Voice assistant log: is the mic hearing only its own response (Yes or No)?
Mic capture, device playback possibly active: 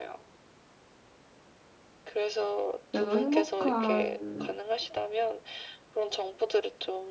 No